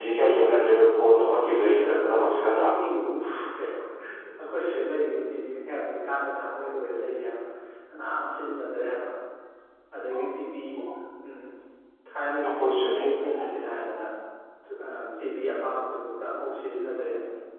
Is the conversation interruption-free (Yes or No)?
No